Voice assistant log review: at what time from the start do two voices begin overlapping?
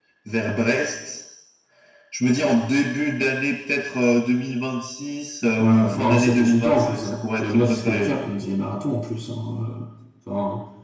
5.5 s

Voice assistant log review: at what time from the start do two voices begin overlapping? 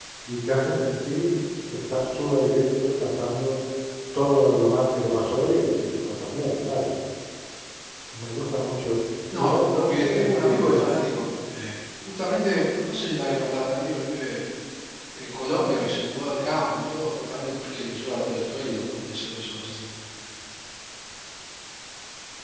9.3 s

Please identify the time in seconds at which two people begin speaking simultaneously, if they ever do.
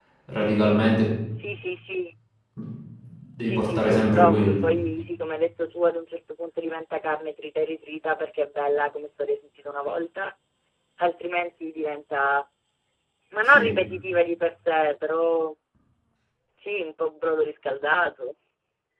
3.5 s

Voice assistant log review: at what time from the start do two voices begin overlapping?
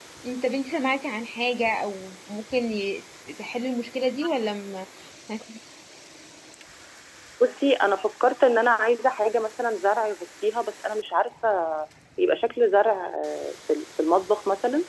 none

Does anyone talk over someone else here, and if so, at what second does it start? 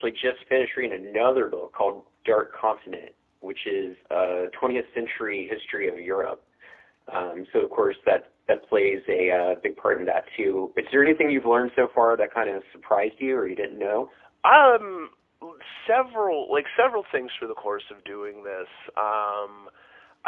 none

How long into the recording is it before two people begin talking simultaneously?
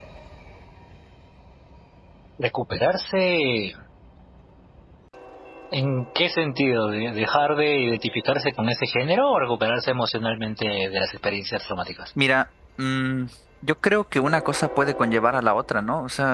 none

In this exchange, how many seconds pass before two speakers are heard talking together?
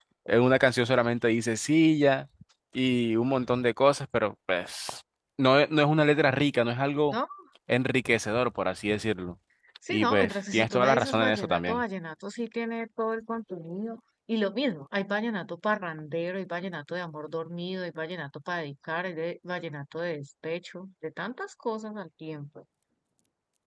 9.9 s

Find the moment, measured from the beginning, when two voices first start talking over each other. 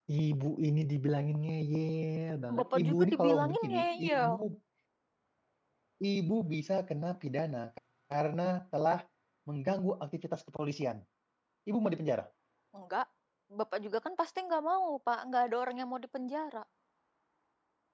2.5 s

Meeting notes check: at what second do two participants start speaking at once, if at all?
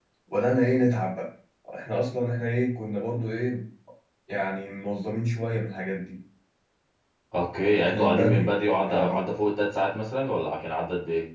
7.8 s

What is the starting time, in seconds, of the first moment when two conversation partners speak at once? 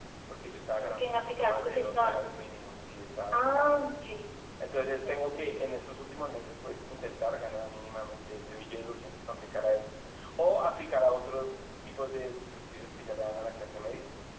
0.8 s

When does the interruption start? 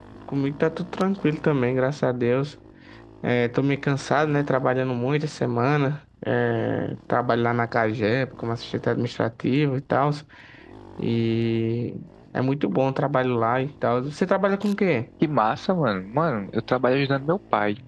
none

